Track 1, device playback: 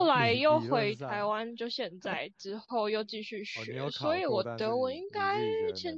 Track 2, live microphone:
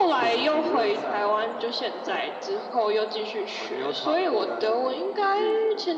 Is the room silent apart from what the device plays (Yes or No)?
Yes